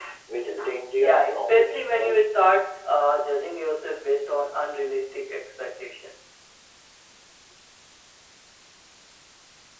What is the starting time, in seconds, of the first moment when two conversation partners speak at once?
1.0 s

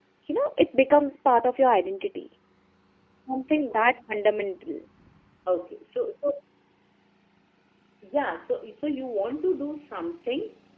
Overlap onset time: none

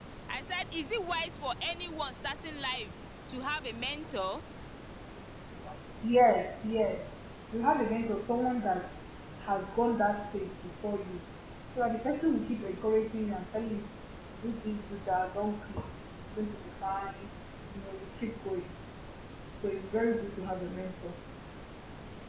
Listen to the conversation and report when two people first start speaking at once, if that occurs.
none

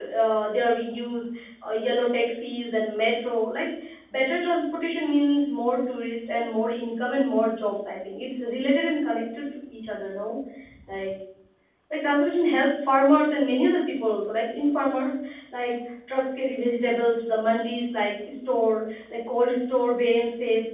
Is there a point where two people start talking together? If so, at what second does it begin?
none

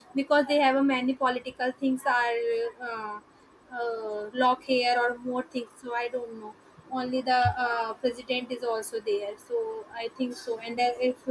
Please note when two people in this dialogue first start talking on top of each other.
none

